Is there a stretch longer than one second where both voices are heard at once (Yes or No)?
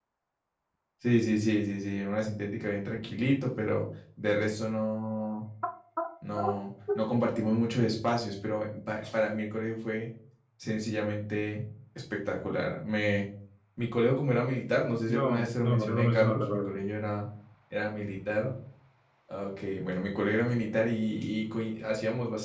Yes